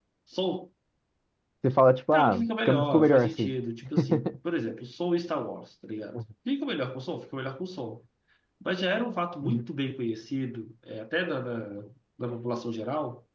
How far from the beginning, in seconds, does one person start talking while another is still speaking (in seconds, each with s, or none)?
2.1 s